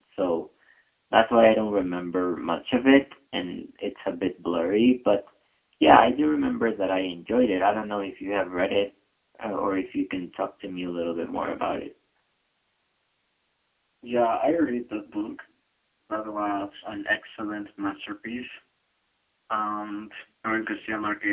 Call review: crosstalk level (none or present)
none